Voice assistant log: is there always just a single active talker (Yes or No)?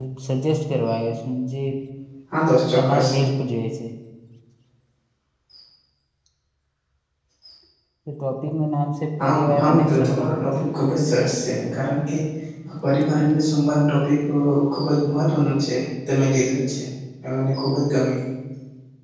No